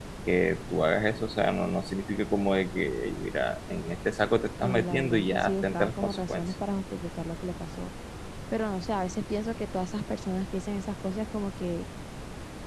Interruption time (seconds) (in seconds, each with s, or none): 4.6 s